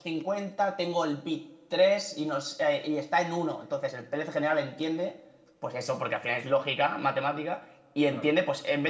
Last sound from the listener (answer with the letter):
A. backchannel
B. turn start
A